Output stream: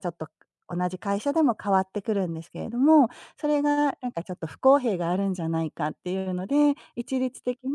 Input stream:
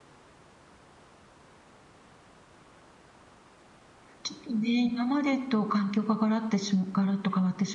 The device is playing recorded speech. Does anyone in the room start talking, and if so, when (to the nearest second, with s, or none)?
4 s